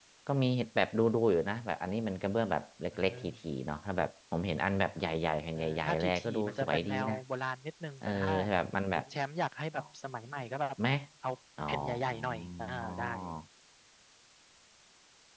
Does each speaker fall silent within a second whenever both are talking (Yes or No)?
No